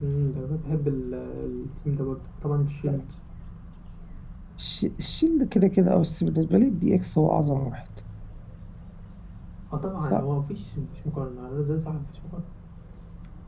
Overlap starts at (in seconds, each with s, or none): none